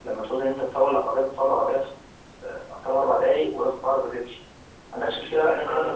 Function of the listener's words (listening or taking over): listening